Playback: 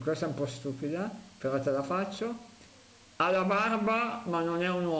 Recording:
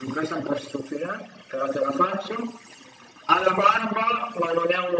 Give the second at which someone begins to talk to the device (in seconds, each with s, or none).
none